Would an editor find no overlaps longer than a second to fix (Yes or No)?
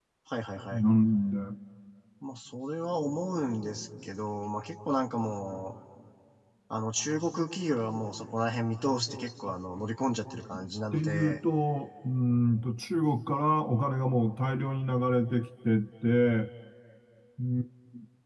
Yes